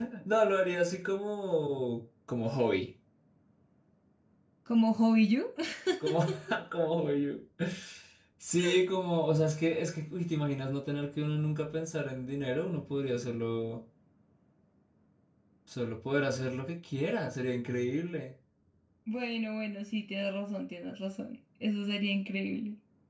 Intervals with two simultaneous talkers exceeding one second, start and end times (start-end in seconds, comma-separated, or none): none